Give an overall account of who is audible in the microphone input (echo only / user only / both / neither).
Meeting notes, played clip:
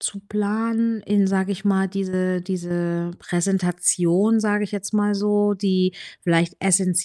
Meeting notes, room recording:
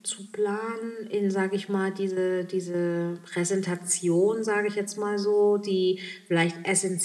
echo only